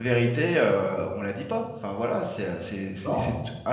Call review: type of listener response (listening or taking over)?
listening